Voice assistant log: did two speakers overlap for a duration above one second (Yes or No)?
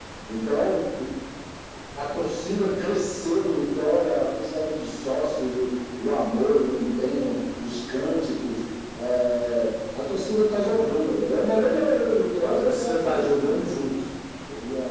Yes